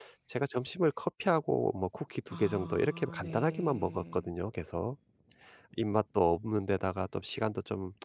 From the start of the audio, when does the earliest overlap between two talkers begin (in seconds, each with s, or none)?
2.3 s